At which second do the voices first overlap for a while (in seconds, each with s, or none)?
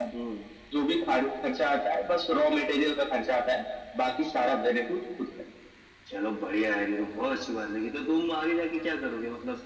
none